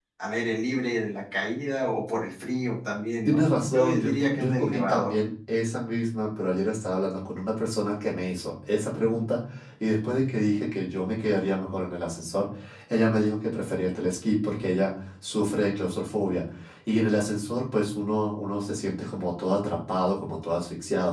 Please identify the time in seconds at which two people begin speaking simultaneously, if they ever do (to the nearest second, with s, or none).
3 s